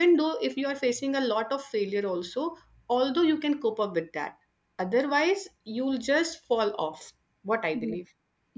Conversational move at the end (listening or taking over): taking over